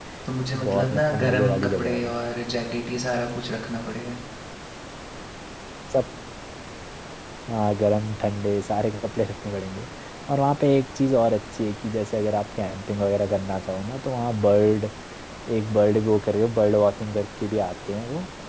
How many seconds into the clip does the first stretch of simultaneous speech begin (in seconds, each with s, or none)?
0.5 s